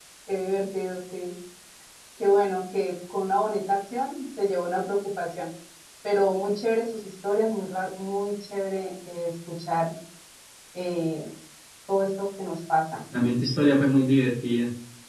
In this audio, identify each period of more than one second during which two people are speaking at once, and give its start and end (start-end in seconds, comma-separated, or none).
none